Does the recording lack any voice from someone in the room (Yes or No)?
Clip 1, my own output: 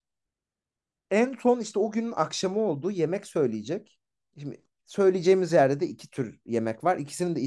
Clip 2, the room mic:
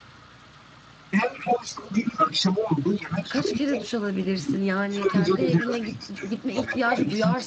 No